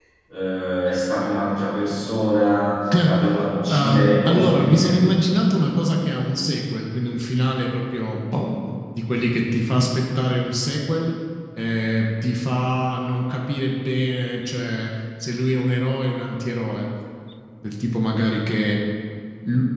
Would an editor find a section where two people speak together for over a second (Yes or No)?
Yes